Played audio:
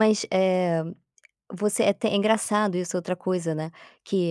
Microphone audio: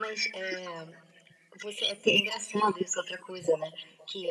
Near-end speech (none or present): none